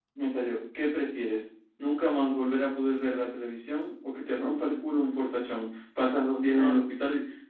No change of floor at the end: Yes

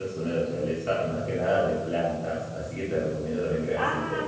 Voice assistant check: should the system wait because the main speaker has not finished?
Yes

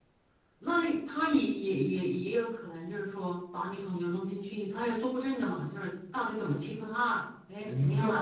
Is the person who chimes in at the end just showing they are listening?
No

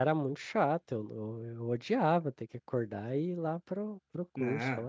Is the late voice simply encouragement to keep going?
No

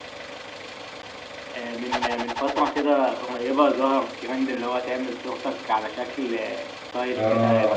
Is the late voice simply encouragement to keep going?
No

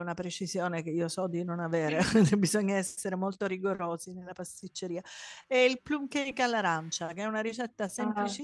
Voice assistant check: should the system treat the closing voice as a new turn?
No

